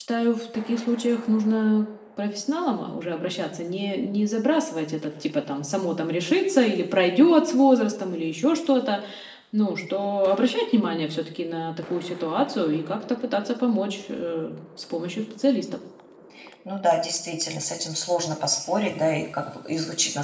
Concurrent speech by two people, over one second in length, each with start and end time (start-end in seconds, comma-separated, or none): none